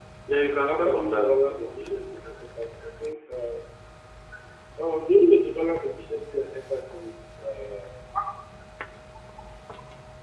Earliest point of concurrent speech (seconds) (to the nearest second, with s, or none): 1 s